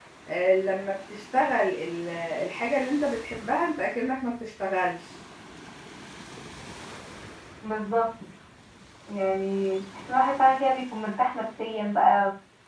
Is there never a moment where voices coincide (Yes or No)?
Yes